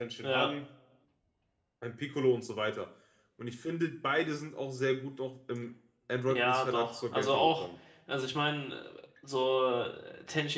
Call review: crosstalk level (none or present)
present